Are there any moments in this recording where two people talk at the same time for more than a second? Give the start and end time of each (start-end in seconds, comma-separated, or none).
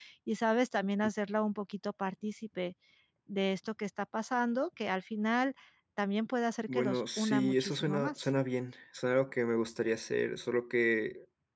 6.7-8.3